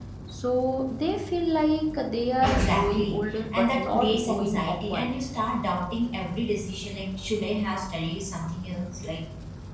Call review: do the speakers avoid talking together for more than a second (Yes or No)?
No